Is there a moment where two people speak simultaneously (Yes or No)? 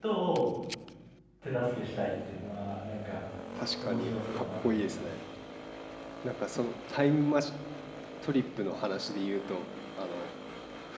Yes